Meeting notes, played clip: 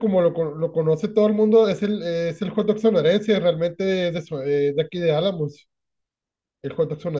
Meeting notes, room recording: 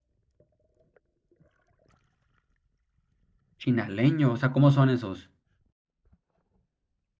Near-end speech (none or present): present